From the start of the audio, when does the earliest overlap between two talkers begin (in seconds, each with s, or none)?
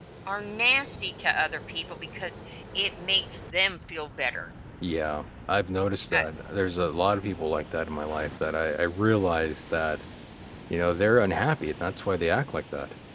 none